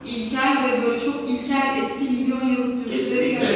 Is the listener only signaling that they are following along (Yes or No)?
No